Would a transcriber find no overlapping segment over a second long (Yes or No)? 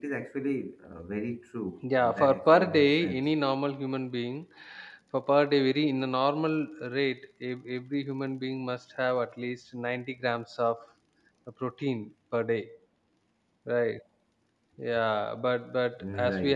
No